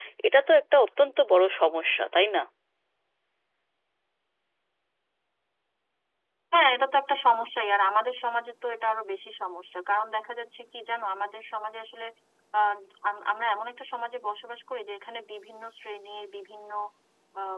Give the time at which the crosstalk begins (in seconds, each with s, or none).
none